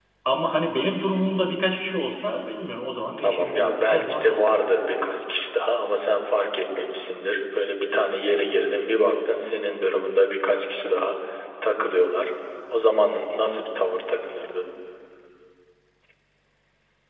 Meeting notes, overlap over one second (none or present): present